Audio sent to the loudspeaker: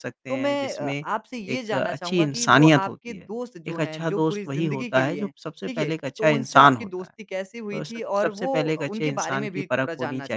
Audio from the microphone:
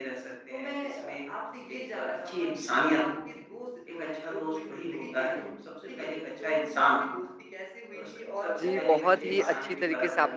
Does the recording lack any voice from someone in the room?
No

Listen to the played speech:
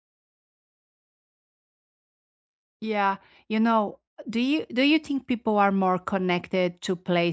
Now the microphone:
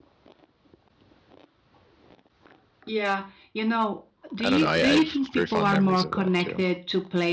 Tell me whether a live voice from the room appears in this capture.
Yes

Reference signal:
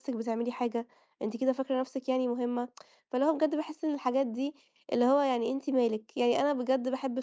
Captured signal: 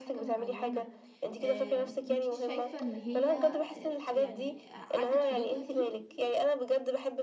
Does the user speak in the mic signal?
Yes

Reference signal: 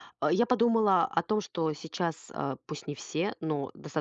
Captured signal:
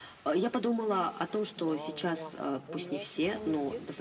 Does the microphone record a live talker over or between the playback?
Yes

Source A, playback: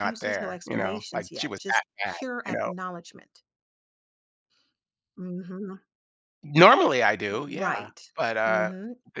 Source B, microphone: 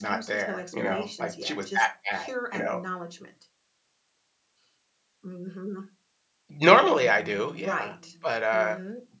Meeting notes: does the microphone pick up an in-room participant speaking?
Yes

